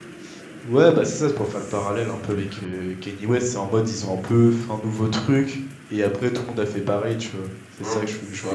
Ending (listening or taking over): taking over